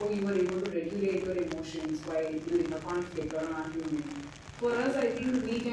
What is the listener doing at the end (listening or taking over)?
listening